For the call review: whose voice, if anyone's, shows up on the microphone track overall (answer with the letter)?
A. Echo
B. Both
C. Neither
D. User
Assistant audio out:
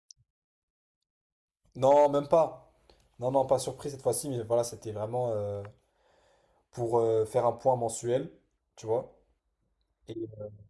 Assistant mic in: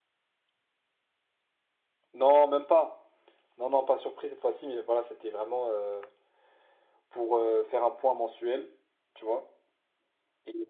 A